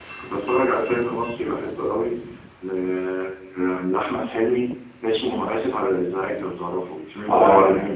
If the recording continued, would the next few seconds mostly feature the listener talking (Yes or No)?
Yes